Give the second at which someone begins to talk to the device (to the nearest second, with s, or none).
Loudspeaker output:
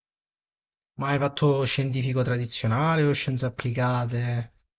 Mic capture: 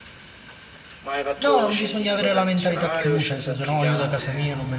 1 s